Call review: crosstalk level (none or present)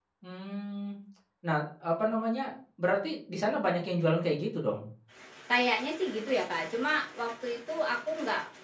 none